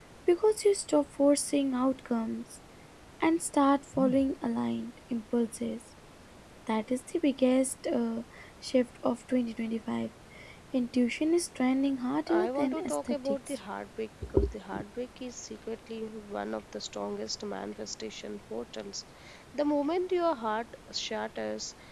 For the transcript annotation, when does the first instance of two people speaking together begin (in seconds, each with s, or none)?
12.3 s